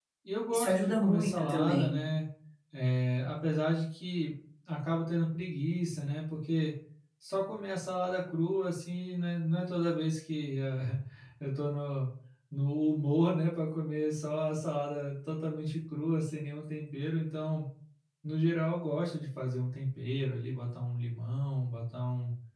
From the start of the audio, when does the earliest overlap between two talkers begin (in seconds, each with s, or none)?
0.5 s